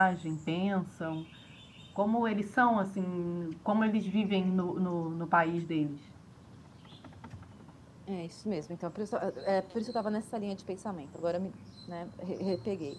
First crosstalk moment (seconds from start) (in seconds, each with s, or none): none